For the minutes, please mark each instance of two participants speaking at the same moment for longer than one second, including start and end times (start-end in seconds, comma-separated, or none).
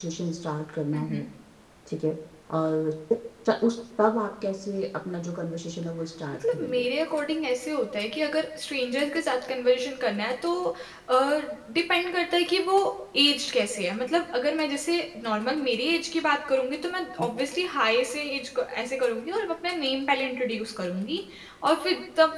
none